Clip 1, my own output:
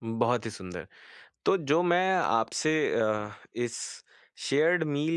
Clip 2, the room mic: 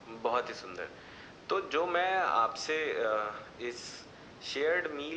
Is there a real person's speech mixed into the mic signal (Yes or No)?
No